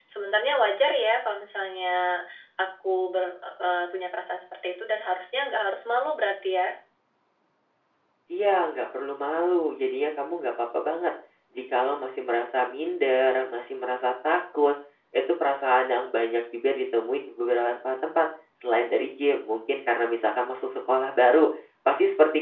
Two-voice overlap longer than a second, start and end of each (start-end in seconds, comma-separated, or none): none